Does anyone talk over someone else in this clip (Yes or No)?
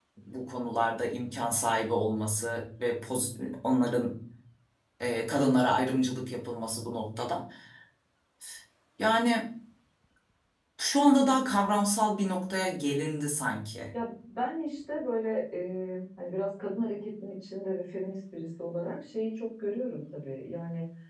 No